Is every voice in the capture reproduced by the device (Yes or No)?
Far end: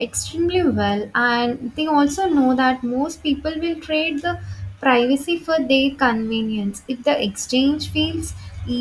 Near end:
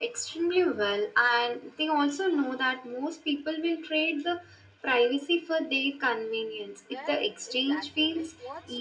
No